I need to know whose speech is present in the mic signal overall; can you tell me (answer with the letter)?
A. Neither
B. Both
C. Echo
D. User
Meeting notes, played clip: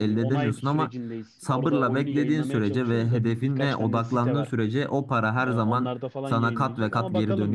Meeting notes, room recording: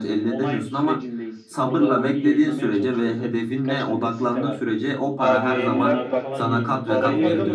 B